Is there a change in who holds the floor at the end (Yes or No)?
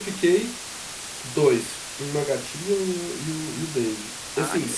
No